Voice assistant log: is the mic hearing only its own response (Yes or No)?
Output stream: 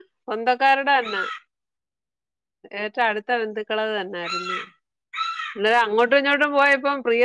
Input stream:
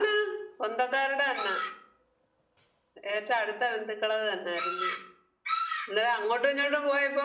Yes